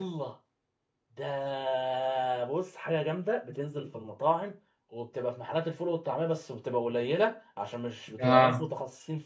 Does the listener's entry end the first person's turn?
No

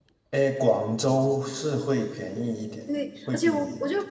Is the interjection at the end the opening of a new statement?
Yes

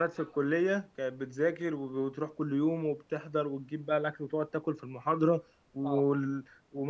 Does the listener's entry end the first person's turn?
No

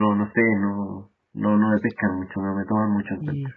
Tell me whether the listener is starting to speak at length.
Yes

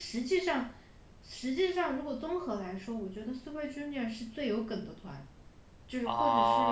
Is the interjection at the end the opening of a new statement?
Yes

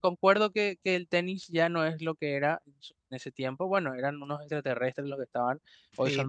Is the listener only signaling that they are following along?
Yes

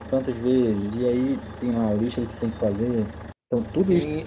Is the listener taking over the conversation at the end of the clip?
Yes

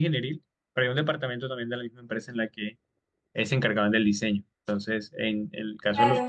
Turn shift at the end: No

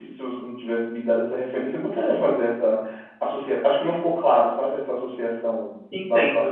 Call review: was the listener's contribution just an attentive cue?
No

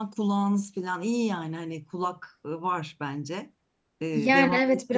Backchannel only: No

